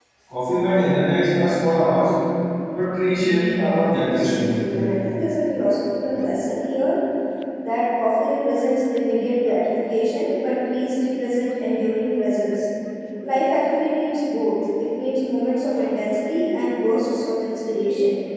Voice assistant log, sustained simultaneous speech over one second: present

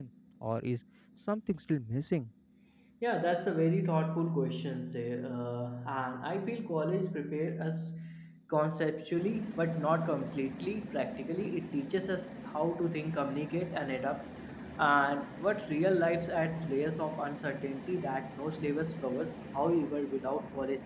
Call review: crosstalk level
none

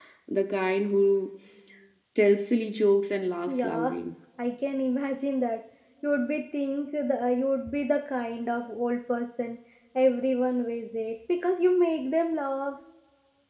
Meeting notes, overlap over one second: none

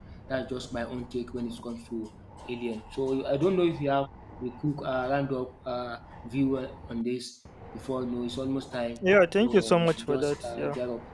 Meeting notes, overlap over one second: present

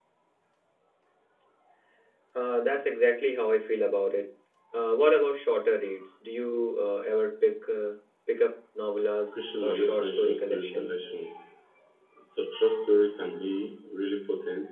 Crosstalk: present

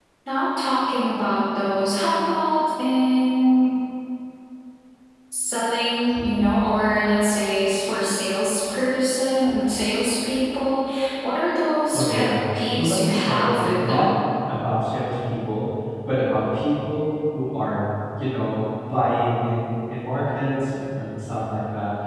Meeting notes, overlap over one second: present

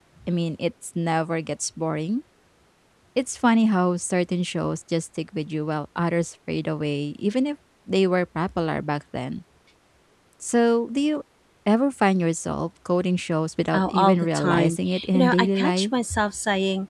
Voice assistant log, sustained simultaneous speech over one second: present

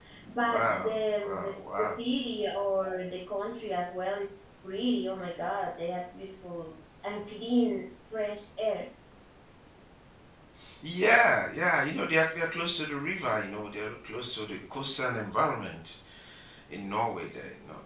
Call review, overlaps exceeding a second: present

